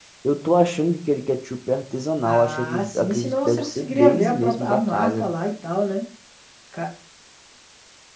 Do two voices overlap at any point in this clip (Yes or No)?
Yes